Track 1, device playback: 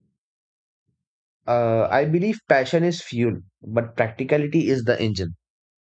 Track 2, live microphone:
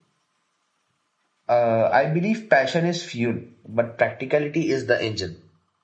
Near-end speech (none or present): none